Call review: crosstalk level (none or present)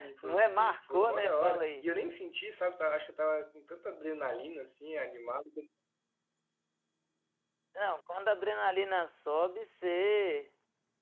present